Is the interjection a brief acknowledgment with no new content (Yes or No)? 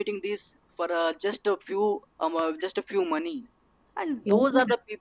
Yes